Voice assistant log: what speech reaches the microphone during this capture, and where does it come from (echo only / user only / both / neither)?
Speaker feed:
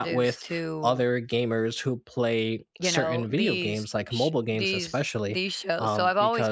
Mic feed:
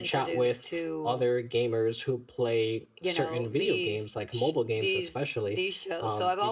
echo only